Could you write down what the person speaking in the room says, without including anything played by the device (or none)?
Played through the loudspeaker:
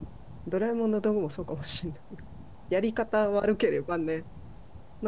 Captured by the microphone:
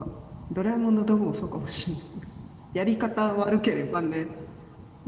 none